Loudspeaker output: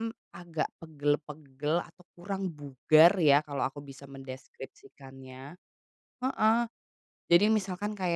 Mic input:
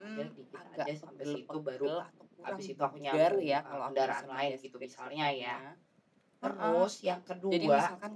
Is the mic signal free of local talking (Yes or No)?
No